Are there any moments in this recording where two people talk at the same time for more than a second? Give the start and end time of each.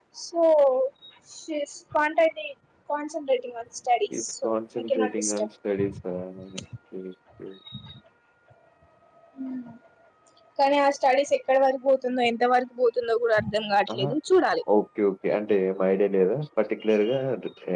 4.2-5.5

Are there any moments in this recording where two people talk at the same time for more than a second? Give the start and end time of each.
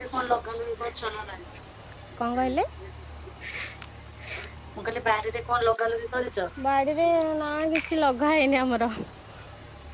none

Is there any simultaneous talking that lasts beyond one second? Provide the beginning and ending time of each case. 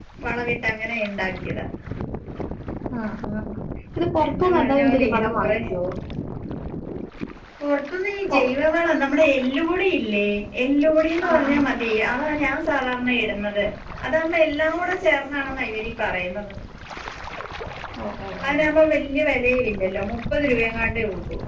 4.3-5.6

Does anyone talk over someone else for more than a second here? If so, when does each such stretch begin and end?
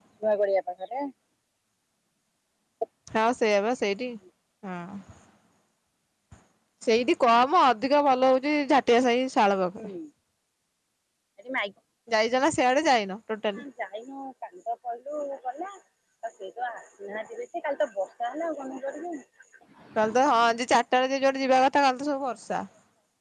none

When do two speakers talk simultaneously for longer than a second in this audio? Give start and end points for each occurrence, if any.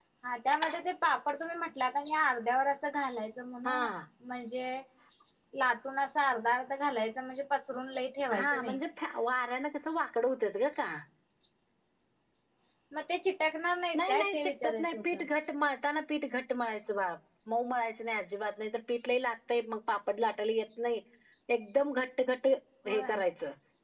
13.9-15.2

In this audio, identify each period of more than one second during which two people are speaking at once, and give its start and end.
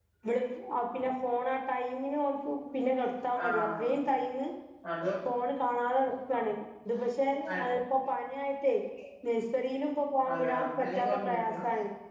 10.3-11.6

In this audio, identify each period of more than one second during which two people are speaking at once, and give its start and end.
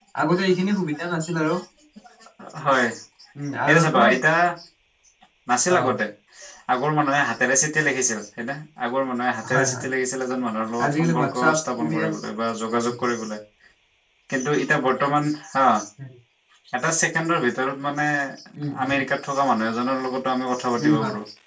10.8-12.1

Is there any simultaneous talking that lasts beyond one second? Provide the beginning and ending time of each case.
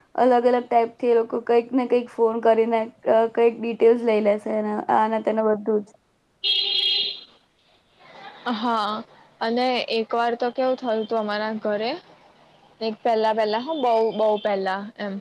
none

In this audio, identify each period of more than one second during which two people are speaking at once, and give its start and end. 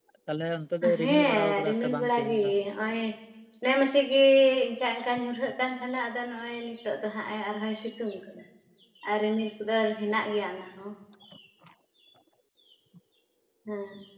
1.0-2.4

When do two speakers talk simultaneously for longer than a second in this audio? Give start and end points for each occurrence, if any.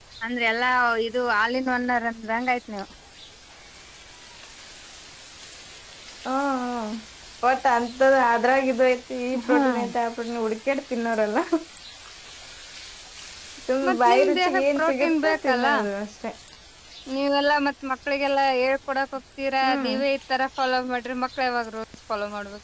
13.9-15.7

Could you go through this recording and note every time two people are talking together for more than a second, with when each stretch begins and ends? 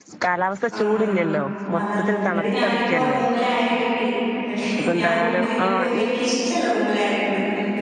1.8-3.2, 4.8-6.1

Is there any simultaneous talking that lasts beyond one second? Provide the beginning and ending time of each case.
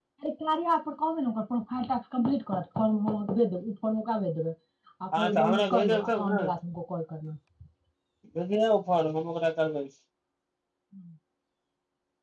5.2-6.5

